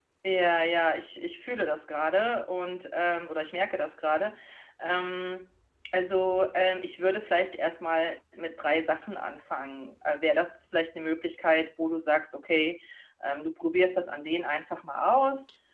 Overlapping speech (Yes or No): No